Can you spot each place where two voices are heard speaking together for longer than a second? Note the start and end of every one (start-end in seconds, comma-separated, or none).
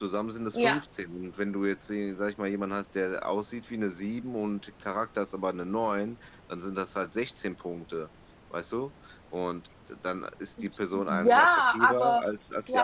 10.9-12.2